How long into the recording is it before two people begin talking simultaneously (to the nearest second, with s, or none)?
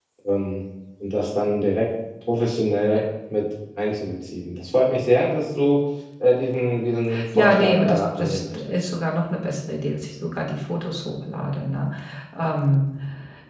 7 s